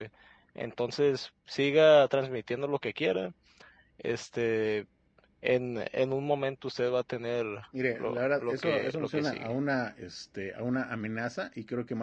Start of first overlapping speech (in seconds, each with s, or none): 8.0 s